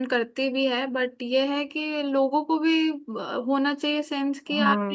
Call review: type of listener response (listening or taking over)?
taking over